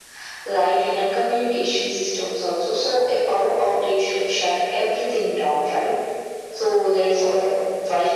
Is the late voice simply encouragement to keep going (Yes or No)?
Yes